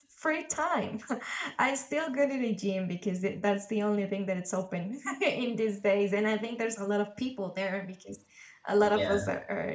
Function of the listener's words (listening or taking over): listening